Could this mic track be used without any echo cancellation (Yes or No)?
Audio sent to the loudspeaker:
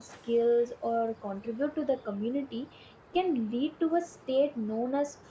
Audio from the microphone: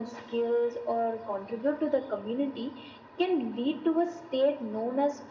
No